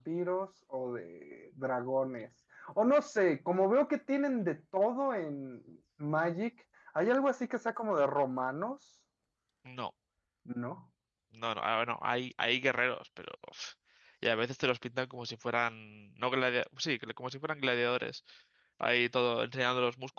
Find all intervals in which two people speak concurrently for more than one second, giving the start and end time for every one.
none

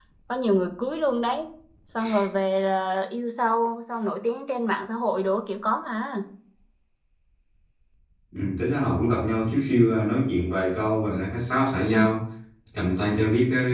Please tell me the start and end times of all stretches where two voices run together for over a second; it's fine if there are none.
none

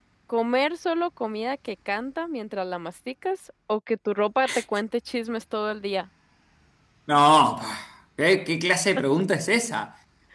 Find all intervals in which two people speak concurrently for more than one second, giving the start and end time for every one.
none

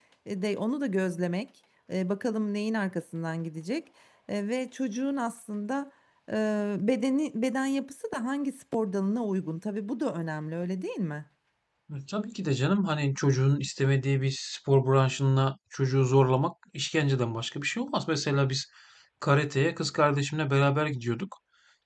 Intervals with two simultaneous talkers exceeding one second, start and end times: none

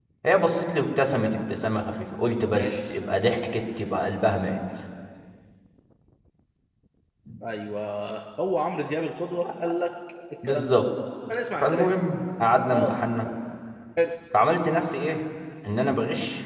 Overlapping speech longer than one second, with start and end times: none

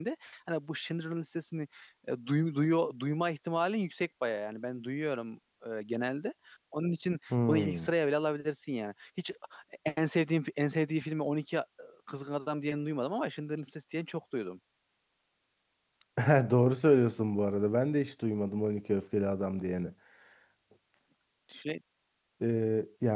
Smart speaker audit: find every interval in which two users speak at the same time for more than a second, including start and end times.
none

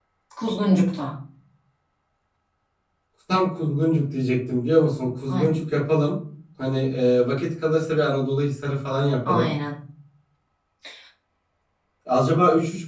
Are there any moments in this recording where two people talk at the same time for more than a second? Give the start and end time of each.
none

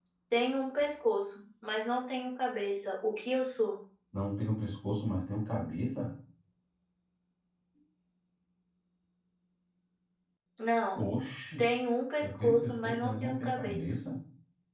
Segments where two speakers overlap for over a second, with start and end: 12.2-13.9

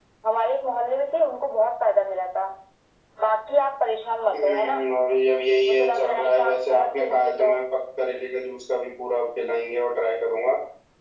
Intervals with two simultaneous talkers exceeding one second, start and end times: 5.6-7.5

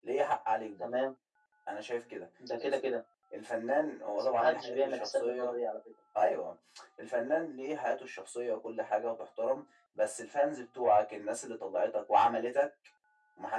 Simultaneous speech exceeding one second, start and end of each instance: 4.2-5.6

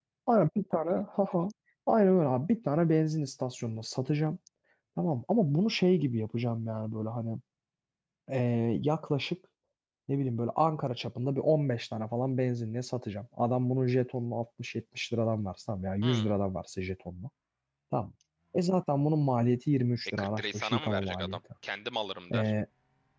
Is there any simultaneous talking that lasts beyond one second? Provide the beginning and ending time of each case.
20.2-21.4

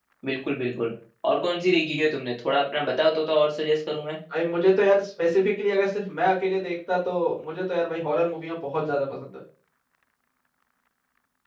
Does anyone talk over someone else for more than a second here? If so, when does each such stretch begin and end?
none

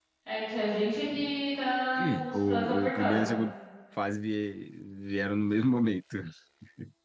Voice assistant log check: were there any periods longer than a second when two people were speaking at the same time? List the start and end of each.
2.0-3.4

